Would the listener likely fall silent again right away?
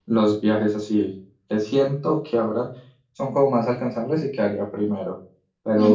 Yes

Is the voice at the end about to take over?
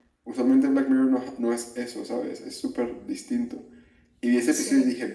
No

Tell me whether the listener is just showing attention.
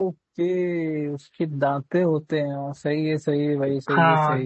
No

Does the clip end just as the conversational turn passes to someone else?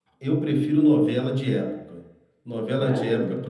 No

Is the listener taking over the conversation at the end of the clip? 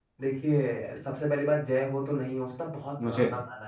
No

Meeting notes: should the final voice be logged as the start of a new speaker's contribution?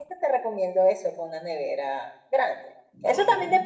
No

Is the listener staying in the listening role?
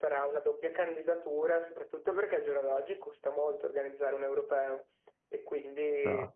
Yes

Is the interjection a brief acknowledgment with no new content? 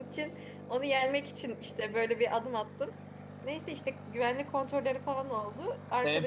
No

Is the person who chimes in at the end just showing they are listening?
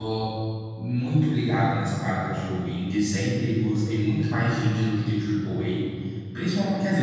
Yes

